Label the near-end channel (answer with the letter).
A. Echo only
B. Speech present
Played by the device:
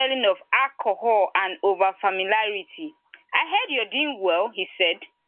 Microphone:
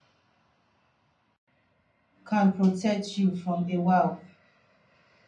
B